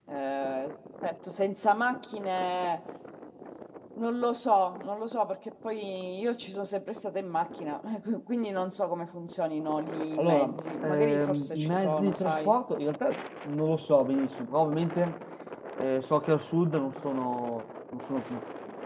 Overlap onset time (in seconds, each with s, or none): 10.2 s